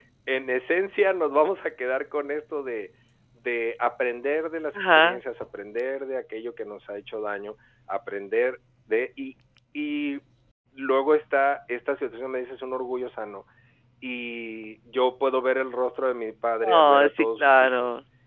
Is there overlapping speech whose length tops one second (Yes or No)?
Yes